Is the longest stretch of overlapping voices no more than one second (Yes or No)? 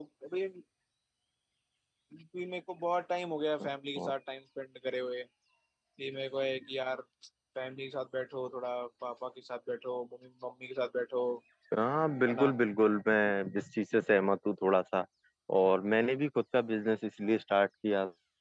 Yes